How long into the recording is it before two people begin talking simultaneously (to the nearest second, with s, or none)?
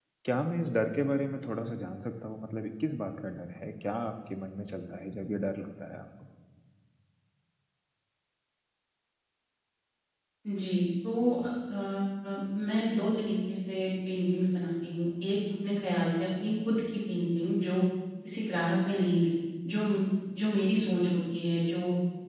none